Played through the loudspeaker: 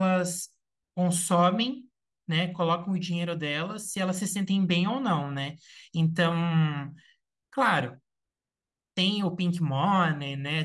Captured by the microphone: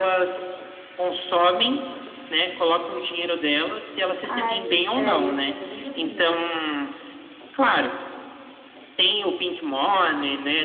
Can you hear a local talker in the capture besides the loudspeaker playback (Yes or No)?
Yes